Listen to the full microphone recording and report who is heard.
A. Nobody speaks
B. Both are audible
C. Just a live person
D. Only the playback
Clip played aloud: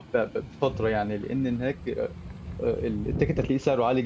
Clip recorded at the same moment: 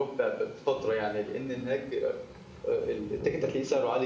D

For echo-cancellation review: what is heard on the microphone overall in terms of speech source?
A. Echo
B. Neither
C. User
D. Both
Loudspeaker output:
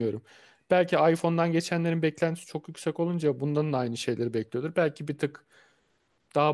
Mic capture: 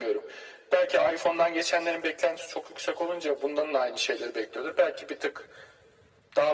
A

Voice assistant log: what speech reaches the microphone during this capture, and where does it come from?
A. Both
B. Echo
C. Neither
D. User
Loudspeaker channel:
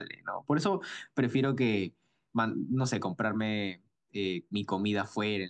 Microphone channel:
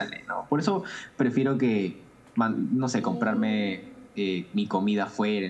A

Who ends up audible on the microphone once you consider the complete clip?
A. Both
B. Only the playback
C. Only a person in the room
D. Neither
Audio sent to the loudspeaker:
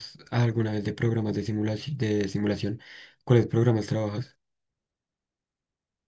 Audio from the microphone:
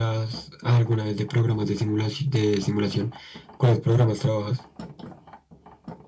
B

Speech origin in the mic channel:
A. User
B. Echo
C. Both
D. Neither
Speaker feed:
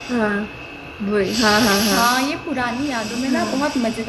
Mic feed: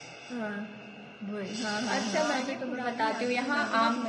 C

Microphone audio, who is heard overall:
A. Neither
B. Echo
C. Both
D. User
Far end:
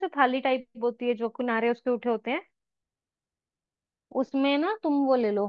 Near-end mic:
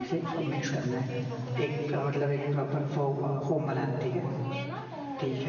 C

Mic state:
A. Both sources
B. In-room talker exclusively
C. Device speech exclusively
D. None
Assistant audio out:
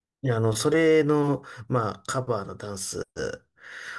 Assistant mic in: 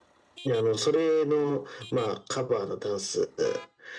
C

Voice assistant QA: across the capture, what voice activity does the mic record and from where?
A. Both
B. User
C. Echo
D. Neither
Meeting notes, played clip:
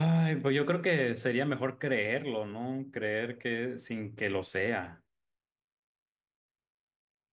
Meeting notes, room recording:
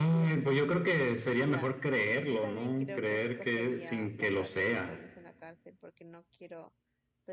A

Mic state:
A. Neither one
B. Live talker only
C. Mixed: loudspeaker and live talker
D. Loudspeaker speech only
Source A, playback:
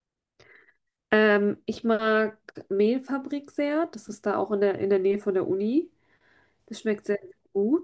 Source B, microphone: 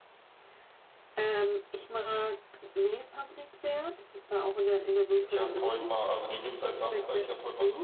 C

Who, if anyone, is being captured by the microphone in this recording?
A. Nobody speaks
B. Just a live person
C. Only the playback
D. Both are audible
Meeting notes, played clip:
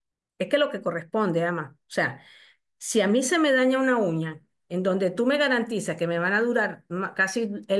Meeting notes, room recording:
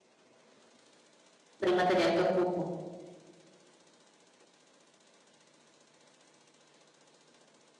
B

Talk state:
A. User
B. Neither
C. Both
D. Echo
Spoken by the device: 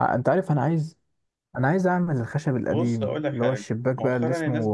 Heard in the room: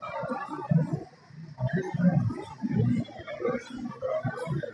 D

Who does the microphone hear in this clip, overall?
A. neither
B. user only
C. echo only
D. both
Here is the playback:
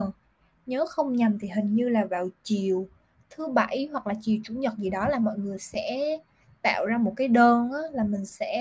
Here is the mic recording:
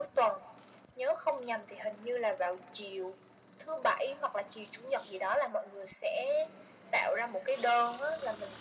C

